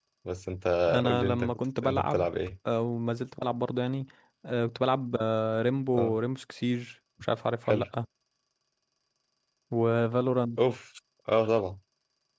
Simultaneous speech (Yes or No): Yes